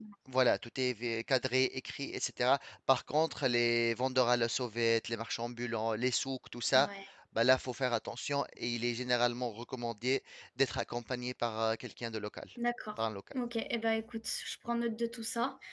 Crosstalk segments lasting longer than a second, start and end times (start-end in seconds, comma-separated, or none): none